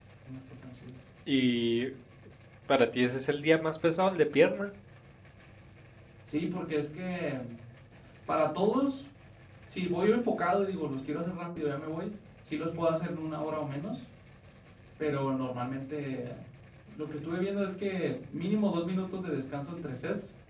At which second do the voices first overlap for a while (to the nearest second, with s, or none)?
none